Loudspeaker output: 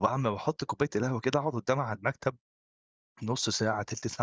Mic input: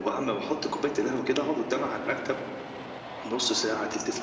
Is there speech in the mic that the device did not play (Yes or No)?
No